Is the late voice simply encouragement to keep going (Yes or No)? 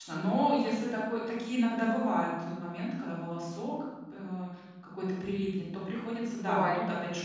Yes